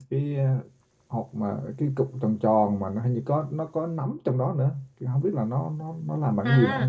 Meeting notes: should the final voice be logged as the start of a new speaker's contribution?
Yes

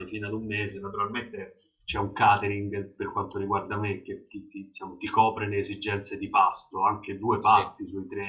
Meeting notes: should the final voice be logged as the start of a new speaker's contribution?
No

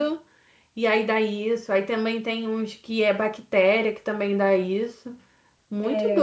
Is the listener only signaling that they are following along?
No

